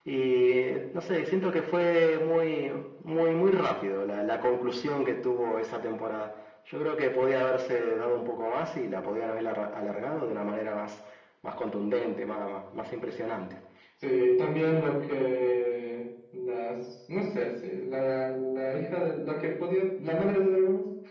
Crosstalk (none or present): none